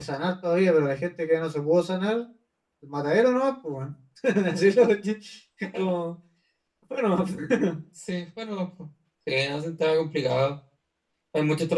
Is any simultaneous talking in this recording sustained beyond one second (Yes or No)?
No